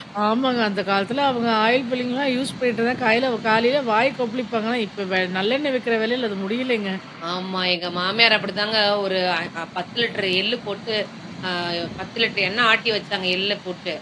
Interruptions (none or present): none